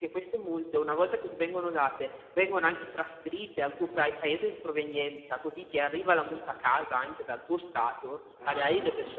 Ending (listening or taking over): listening